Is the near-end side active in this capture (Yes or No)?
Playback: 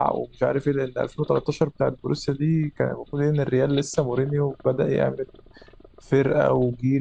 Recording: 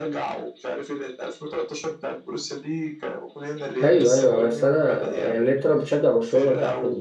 Yes